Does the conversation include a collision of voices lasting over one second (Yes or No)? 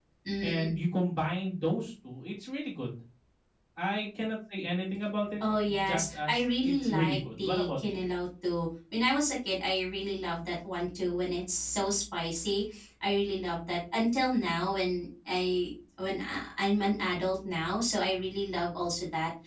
Yes